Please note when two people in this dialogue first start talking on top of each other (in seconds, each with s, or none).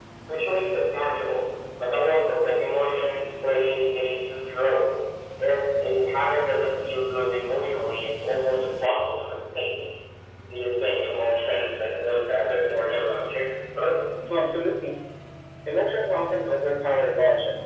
none